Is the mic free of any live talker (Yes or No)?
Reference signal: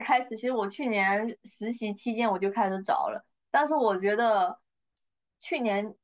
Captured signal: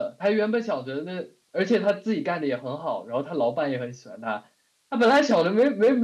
No